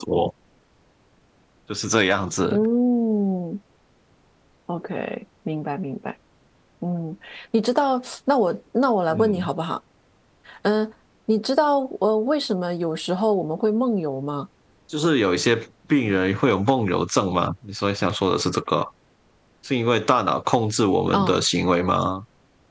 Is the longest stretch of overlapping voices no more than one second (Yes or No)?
Yes